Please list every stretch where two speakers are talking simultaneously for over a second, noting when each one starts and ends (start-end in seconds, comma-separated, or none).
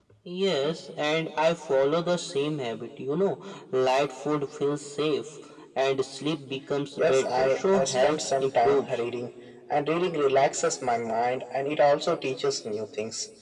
7.0-8.9